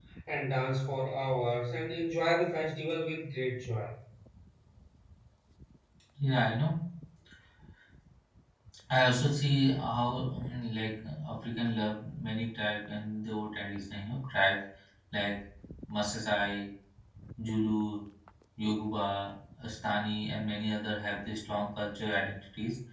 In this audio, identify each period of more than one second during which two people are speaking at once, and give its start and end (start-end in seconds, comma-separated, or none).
none